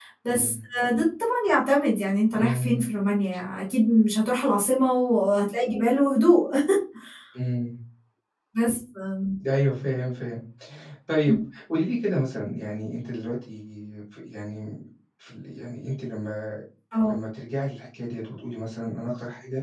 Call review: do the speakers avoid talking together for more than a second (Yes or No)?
Yes